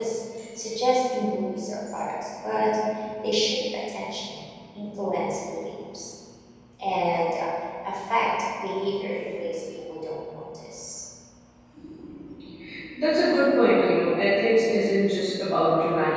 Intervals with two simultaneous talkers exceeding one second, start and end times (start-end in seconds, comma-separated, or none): none